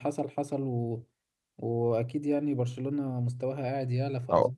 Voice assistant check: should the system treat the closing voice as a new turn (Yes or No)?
Yes